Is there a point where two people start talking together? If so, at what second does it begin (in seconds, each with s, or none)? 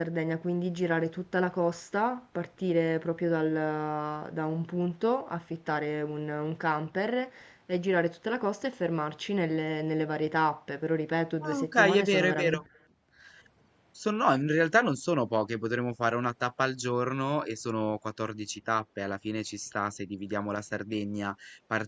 11.4 s